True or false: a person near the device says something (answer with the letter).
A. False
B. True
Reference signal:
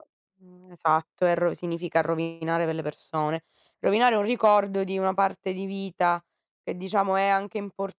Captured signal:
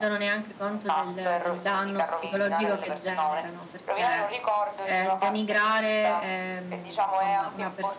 B